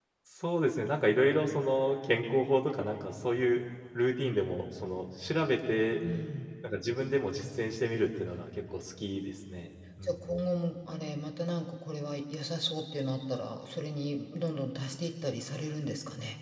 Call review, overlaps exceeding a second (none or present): none